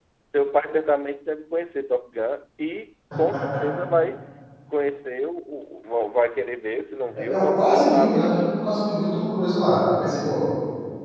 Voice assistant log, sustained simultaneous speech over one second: present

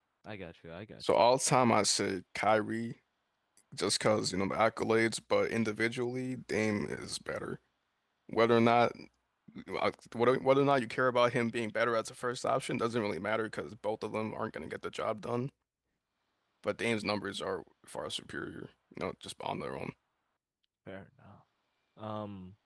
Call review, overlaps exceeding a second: none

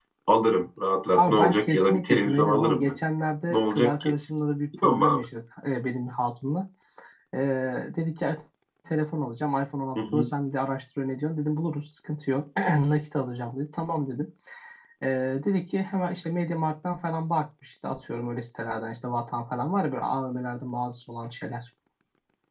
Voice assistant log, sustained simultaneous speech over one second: present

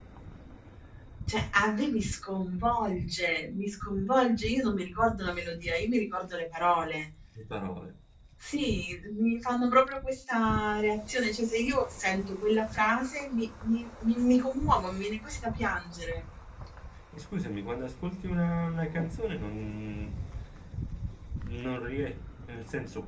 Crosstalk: none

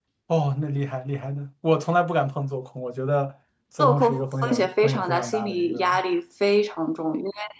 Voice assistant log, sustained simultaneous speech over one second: present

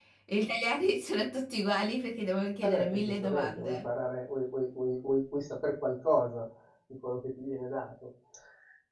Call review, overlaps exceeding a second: present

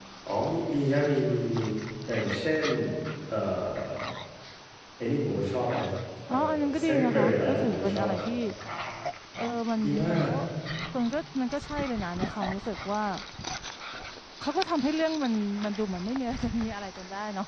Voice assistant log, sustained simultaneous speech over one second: present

